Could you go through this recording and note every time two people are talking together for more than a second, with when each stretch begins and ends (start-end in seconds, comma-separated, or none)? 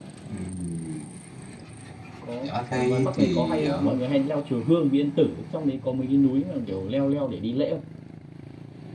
2.5-3.9